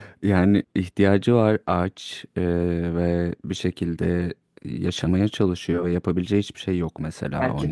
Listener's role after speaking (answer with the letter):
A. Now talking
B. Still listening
A